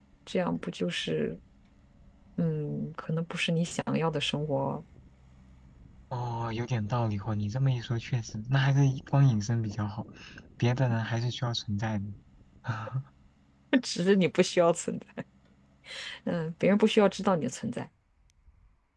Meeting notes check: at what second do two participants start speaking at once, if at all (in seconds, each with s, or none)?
none